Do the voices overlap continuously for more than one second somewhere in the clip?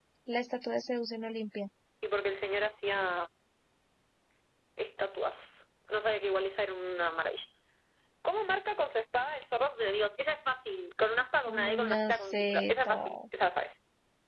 Yes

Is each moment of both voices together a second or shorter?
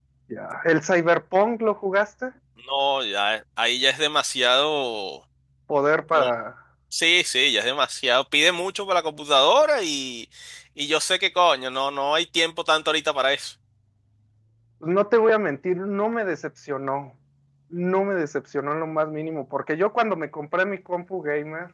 Yes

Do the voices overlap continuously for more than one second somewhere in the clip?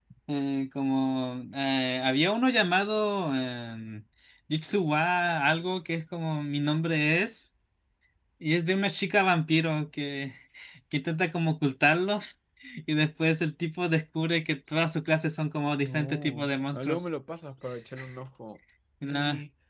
Yes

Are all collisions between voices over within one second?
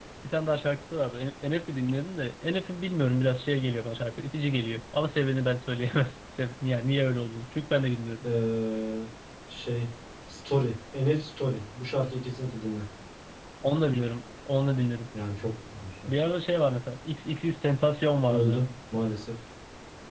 Yes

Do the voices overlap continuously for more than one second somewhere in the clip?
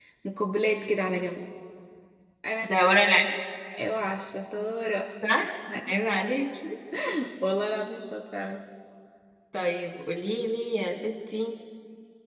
No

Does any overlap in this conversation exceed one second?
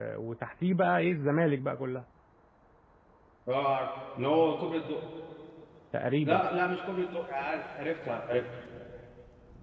No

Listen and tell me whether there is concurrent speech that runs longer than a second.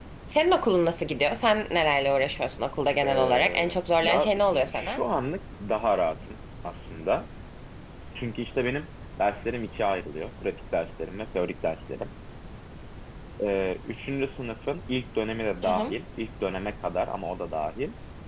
Yes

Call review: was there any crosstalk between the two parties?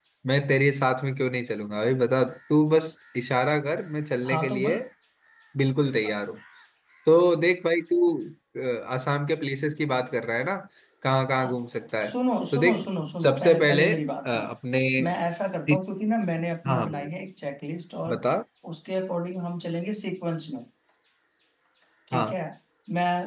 Yes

